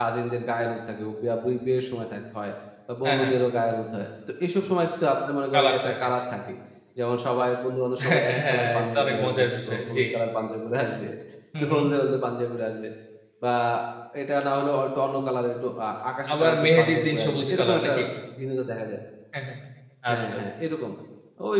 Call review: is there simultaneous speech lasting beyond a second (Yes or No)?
Yes